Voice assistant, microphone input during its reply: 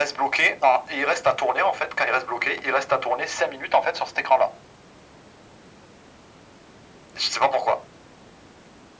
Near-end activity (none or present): none